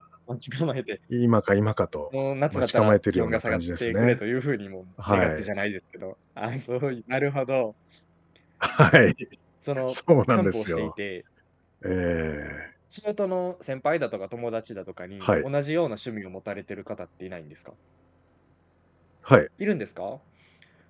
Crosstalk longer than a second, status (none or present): present